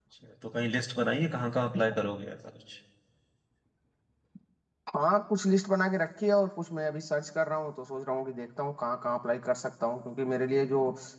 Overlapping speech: No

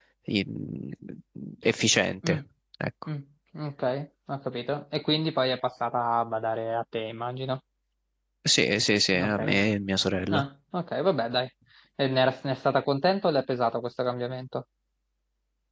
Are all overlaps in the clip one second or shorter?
Yes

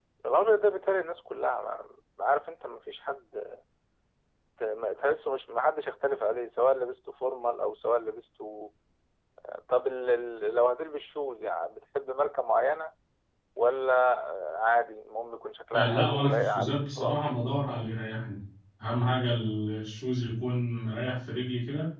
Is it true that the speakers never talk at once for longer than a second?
No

